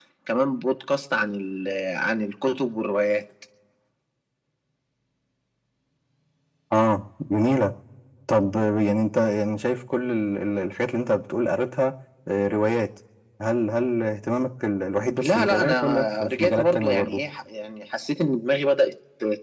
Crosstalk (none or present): present